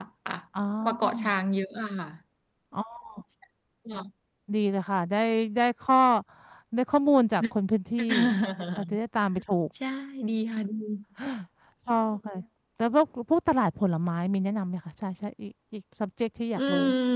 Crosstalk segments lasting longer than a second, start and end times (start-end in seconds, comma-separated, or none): none